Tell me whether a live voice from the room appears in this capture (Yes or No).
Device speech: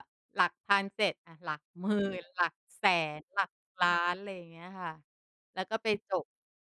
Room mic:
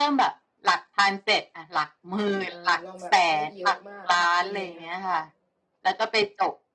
Yes